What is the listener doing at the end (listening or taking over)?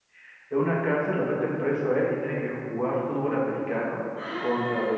taking over